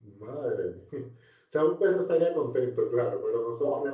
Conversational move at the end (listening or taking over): taking over